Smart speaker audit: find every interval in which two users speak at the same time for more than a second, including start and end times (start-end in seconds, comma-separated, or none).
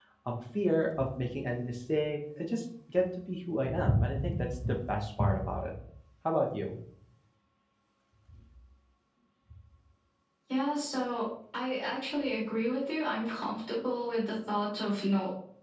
none